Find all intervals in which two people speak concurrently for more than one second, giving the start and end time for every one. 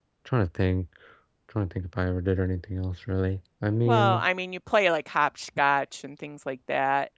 none

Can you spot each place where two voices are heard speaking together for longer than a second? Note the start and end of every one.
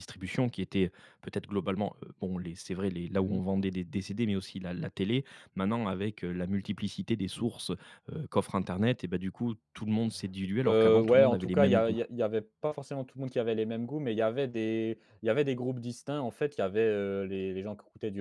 10.7-12.0

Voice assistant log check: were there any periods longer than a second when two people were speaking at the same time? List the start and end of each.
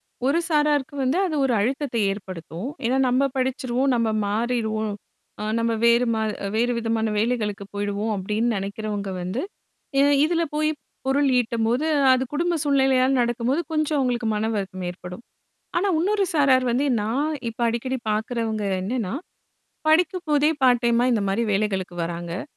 none

